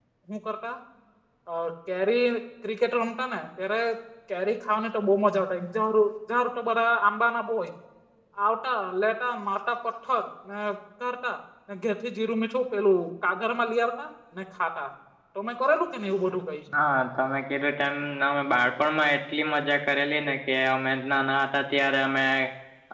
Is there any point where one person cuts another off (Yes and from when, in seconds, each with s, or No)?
No